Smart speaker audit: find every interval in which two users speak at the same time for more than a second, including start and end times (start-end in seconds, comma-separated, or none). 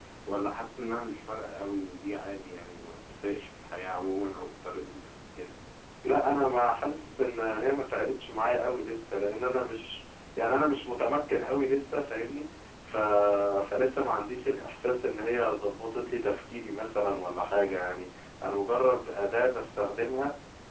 none